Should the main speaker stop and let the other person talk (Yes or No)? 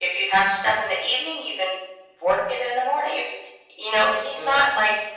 No